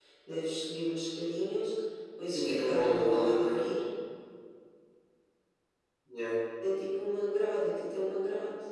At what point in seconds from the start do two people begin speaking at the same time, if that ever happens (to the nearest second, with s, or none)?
2 s